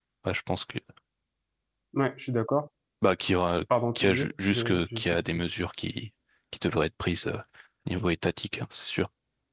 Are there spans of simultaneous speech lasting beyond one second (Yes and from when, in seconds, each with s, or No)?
Yes, from 4.0 s